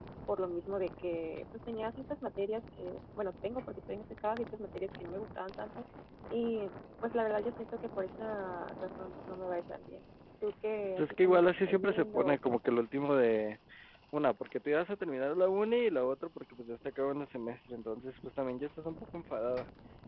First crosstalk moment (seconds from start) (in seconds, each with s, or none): 11.0 s